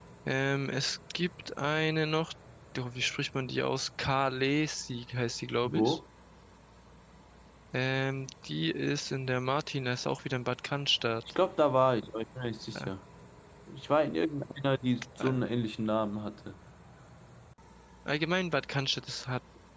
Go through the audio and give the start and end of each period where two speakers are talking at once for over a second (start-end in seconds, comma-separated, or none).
none